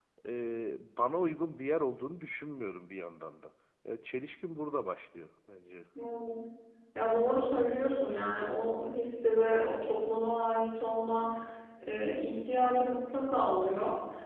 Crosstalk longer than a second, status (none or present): none